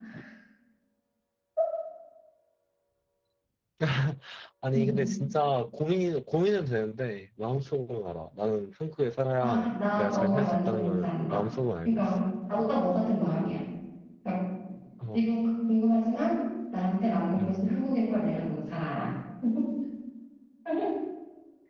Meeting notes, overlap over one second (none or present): present